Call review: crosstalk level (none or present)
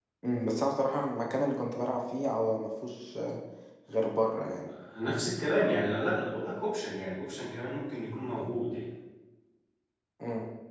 none